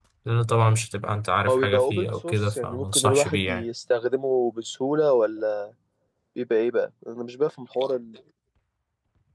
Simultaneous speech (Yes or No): Yes